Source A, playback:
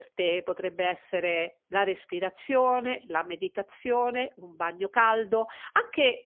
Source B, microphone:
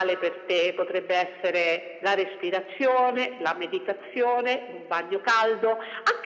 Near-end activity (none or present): none